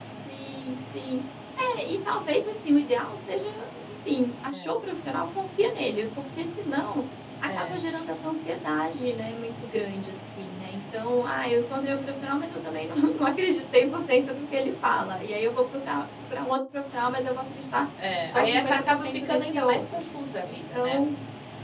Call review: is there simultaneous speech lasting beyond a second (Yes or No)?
Yes